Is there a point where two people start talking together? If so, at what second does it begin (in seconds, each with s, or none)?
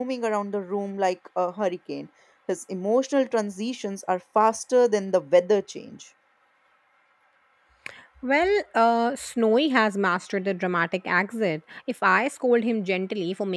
none